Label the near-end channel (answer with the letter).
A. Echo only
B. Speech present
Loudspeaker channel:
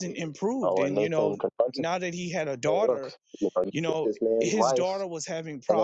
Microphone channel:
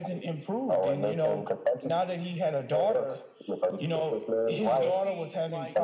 B